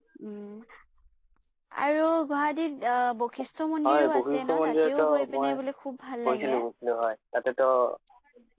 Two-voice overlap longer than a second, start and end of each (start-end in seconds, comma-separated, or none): 3.9-5.5